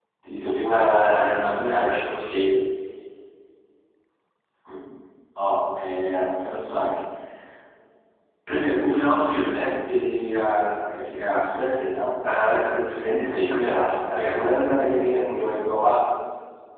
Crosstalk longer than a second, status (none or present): present